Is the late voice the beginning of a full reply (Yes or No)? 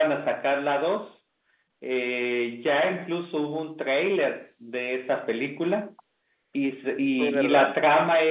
No